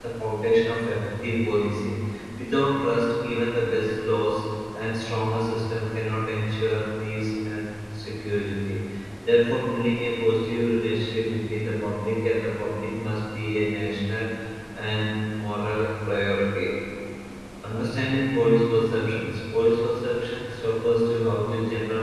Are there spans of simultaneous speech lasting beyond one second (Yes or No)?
No